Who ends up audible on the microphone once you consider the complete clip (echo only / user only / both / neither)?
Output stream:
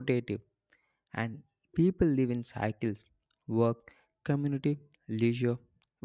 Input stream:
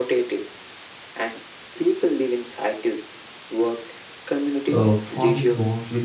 both